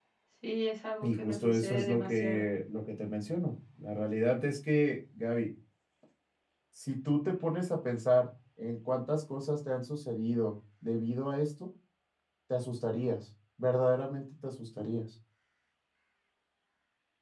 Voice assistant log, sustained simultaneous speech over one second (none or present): present